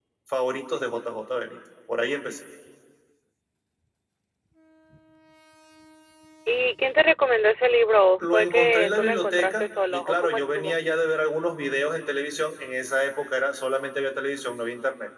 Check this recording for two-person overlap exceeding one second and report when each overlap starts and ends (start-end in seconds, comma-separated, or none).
8.2-10.7